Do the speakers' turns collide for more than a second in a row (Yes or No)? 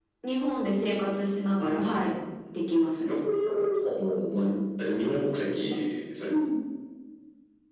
No